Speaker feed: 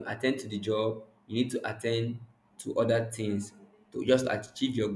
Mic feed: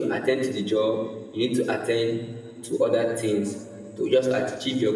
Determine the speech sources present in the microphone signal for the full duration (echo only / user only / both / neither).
echo only